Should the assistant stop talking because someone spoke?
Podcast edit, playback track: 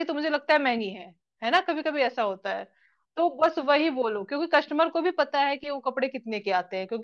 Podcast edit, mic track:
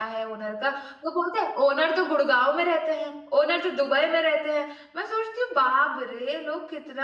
Yes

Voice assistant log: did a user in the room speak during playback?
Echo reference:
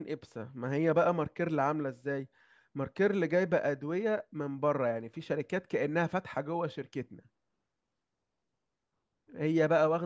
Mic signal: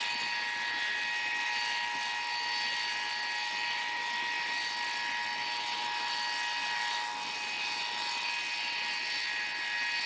No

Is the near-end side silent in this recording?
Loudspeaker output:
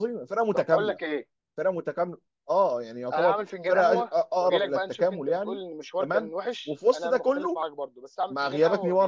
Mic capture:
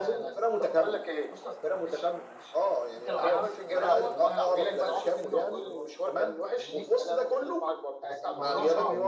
No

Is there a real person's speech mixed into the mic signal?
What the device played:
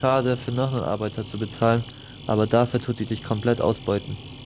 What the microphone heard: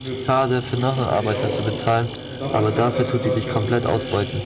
Yes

